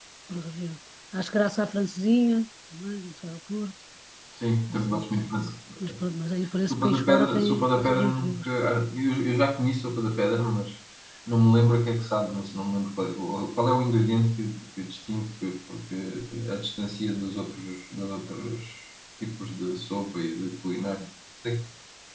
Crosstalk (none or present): present